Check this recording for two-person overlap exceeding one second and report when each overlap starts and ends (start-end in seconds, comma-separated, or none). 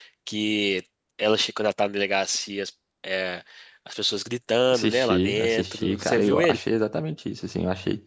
4.7-6.6